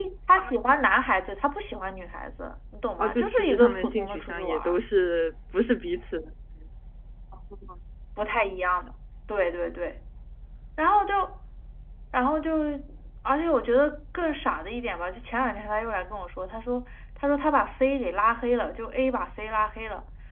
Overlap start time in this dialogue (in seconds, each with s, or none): 3.0 s